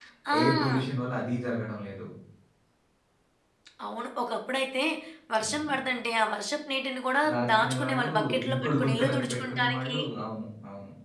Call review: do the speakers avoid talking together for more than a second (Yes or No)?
No